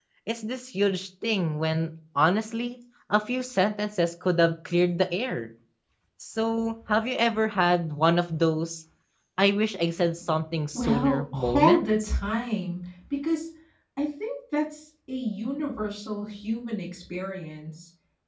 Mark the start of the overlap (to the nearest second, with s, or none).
11 s